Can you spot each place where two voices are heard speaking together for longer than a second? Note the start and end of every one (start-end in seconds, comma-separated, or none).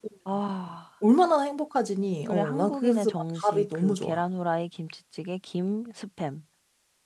2.3-4.2